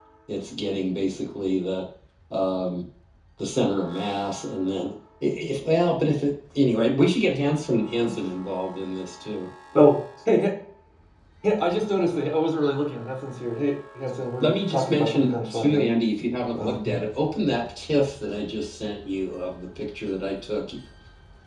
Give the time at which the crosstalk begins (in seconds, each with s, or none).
14.4 s